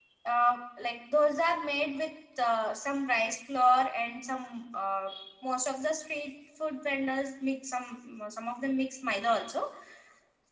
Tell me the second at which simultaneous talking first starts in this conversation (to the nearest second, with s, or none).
none